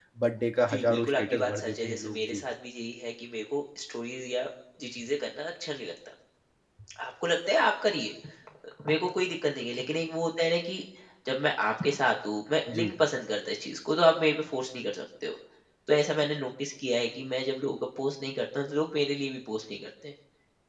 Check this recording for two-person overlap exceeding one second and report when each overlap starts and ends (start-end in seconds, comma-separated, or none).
0.7-2.4